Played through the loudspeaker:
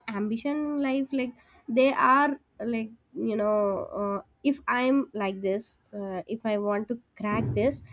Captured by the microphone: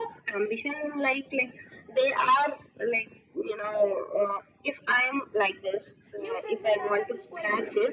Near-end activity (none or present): present